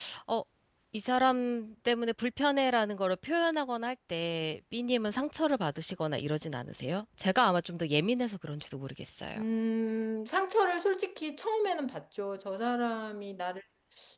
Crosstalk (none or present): none